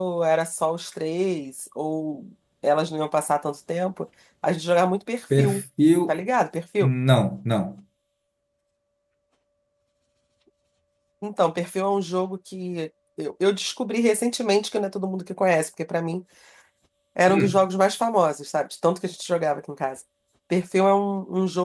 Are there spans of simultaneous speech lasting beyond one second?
No

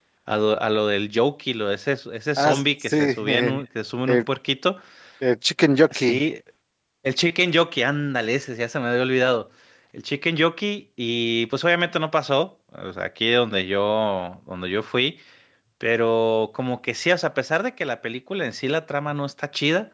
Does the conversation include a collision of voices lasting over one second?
Yes, from 2.4 s

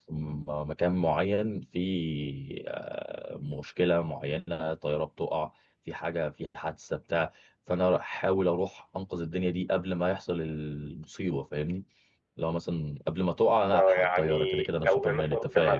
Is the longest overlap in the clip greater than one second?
Yes, from 13.7 s

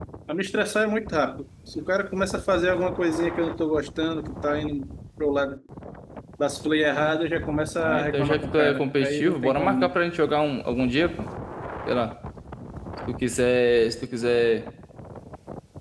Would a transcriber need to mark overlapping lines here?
Yes, from 7.8 s

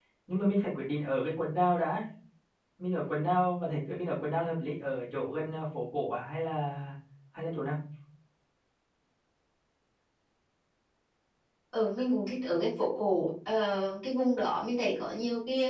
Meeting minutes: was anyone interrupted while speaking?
No

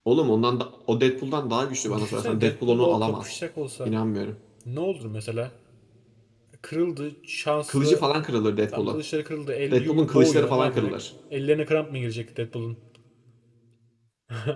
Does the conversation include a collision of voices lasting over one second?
Yes, from 1.9 s

